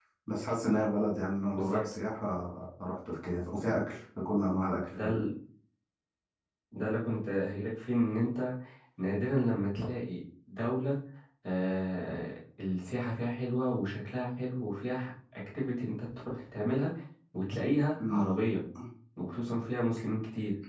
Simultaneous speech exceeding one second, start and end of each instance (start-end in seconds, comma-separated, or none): none